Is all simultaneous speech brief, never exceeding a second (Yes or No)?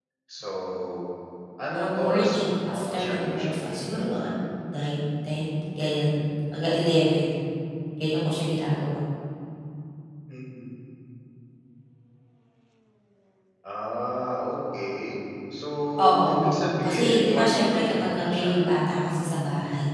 No